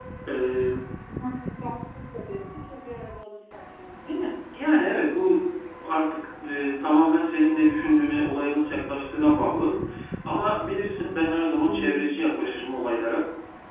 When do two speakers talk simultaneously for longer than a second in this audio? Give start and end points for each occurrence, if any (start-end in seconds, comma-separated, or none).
none